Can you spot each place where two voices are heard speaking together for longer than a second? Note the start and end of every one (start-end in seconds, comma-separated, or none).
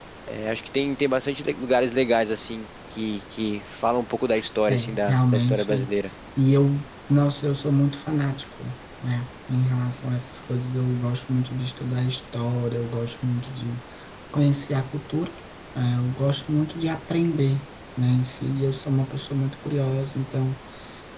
4.7-5.9